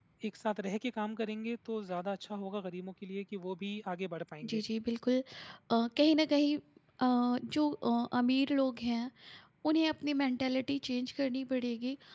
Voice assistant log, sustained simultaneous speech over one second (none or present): none